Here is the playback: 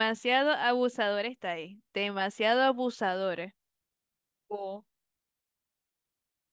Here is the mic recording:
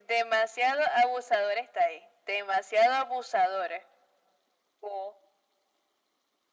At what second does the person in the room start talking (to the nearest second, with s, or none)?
none